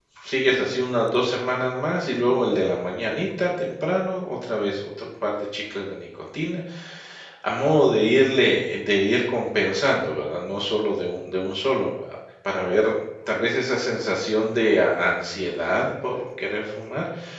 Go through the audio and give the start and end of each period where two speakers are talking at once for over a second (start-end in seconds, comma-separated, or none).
none